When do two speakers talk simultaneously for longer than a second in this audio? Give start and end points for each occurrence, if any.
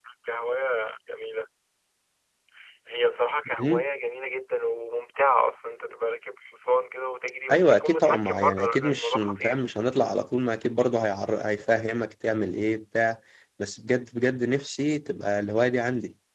7.5-9.6

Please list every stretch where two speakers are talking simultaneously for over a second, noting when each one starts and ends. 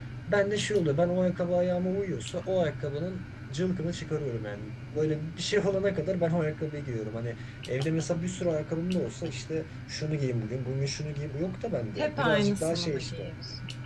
12.0-13.2

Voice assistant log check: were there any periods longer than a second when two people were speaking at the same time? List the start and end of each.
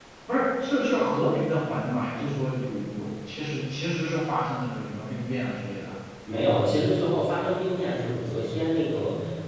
none

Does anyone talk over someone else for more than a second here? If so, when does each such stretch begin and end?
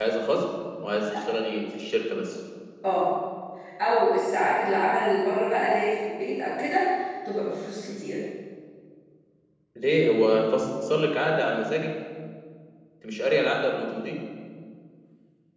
none

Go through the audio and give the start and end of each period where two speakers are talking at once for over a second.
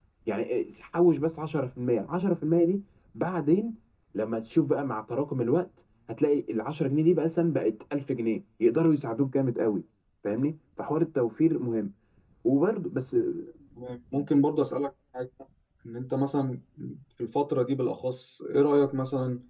none

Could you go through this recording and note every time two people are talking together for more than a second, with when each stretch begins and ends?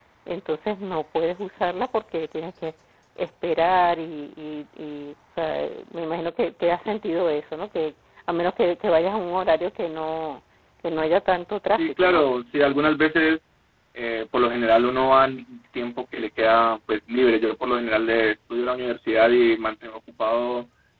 none

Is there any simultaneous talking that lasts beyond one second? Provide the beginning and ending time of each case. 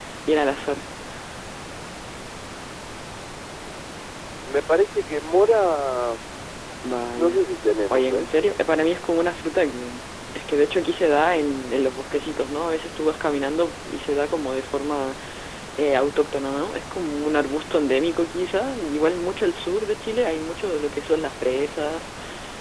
none

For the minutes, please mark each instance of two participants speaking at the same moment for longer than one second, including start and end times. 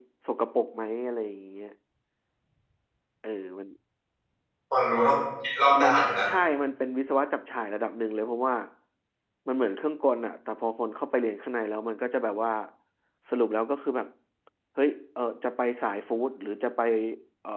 none

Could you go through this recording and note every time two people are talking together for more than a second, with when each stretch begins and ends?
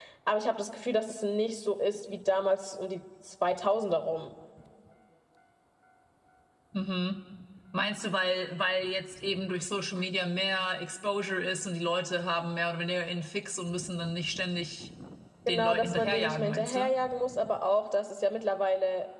15.5-16.9

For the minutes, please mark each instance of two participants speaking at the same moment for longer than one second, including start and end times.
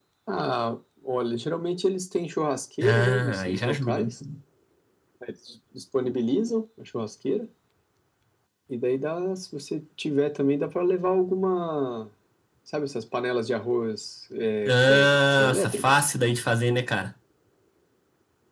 2.8-4.1, 14.6-16.0

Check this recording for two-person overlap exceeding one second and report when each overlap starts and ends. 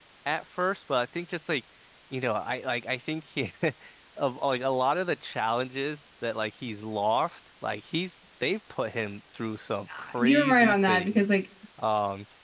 10.0-11.3

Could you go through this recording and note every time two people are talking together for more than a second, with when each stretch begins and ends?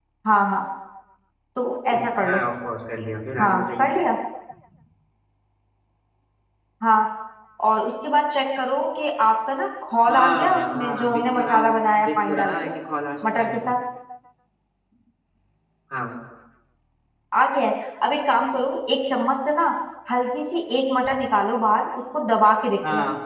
10.1-12.7

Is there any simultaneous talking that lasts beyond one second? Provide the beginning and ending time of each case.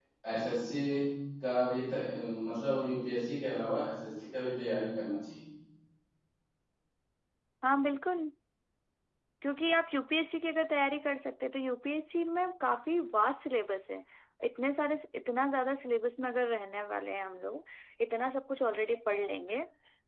none

